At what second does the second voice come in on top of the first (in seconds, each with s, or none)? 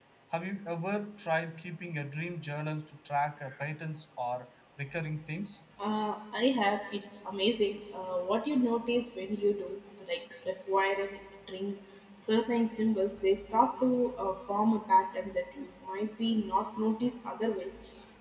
none